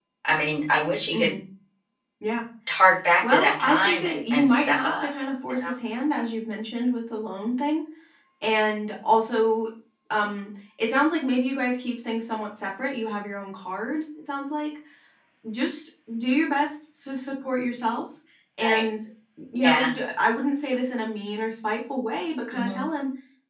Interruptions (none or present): present